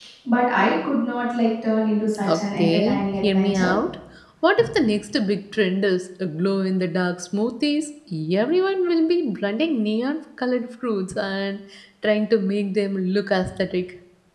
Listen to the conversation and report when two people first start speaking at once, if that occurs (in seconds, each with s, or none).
2.2 s